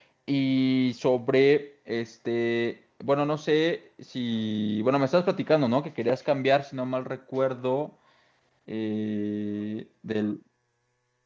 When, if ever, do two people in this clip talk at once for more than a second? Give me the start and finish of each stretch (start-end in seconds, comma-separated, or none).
none